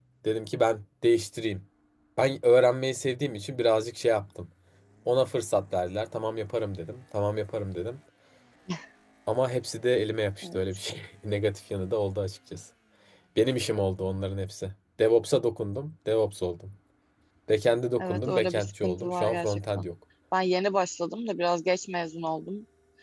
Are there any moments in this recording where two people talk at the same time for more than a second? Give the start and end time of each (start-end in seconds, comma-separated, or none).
18.0-19.8